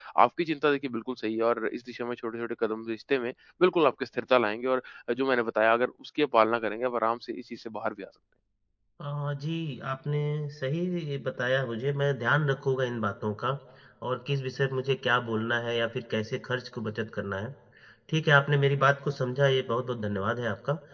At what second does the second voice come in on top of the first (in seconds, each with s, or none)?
none